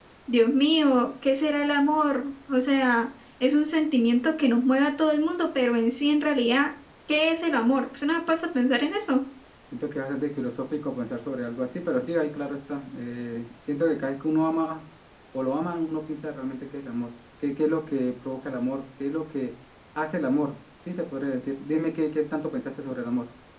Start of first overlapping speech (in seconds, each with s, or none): none